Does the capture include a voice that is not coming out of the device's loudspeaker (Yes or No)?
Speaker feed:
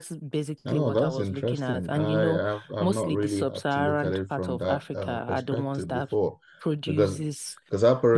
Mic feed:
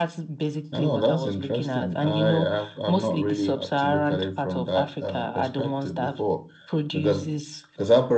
No